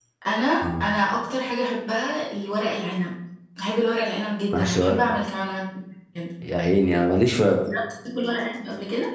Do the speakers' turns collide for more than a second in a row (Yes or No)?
No